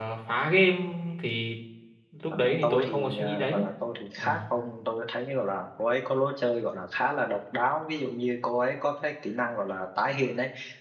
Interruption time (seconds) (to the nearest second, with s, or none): 2 s